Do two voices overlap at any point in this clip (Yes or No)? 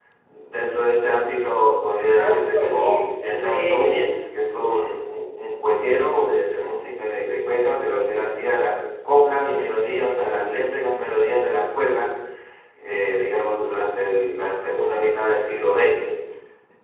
Yes